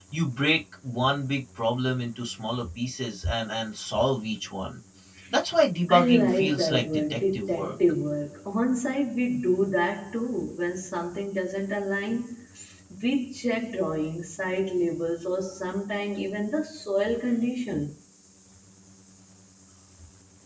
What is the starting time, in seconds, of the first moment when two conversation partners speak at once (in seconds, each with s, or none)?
5.9 s